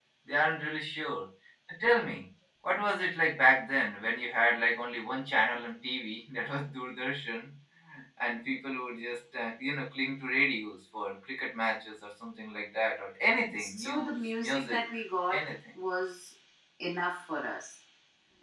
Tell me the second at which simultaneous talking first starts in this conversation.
13.6 s

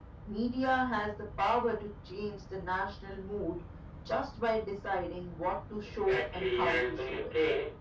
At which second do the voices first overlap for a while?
5.8 s

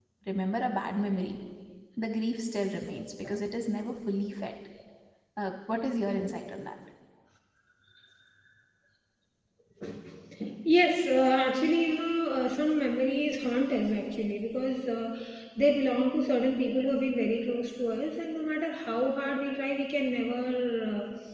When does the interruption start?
none

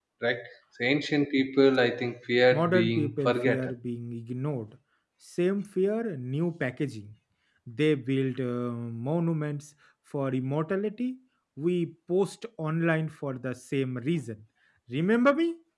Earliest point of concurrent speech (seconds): 2.5 s

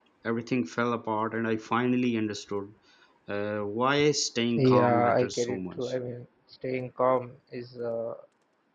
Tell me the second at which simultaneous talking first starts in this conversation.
4.6 s

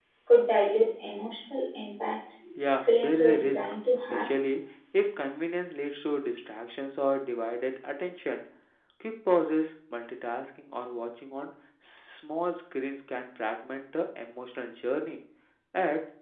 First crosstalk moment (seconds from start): 2.8 s

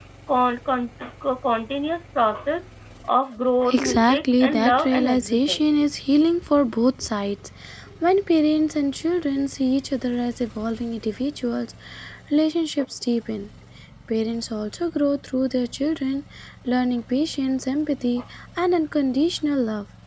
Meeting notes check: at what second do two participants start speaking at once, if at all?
3.7 s

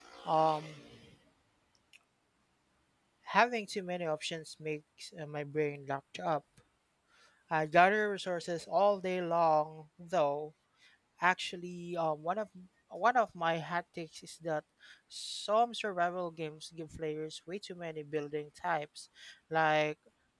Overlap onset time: none

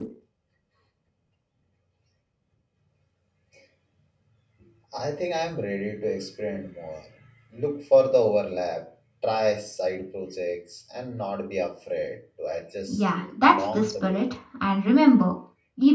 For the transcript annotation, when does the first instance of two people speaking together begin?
12.9 s

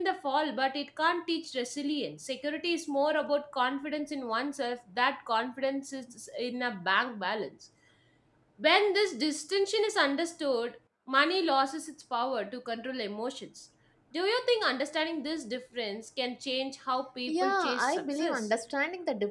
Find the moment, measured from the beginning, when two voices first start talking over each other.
17.3 s

